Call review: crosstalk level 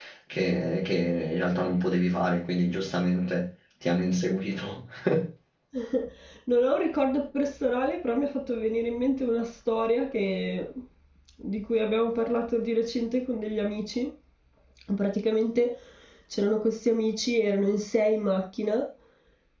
none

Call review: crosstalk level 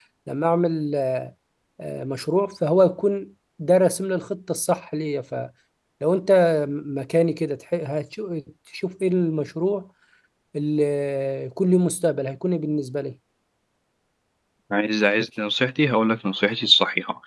none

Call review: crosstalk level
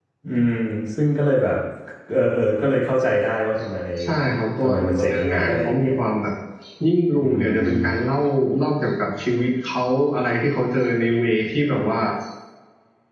present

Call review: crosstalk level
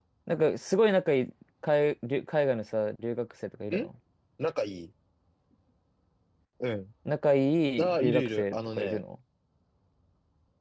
present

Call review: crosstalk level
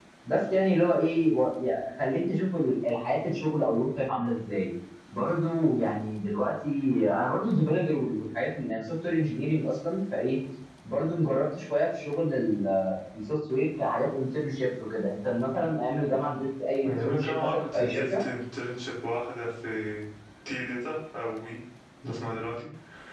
present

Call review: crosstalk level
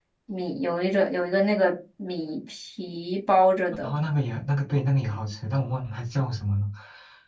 none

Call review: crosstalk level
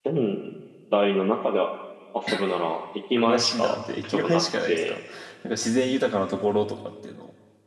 present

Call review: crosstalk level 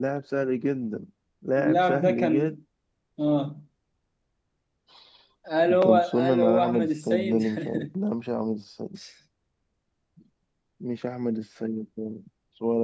present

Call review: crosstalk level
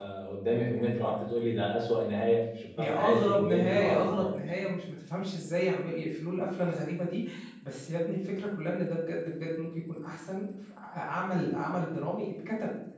present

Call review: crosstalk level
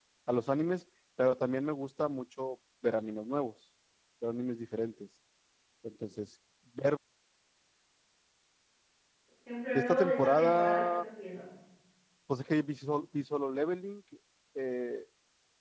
present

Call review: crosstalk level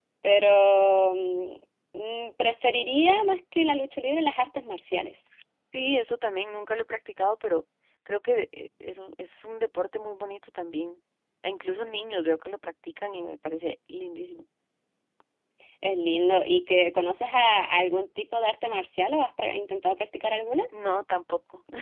none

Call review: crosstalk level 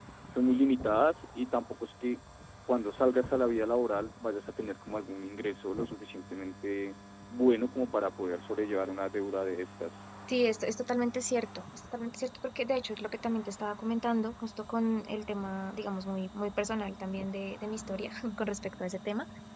none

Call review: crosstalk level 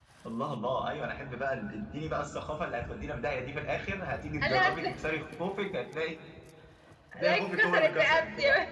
present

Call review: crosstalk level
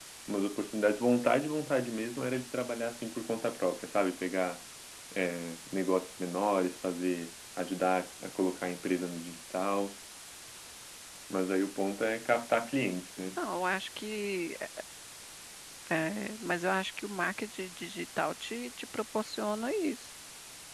none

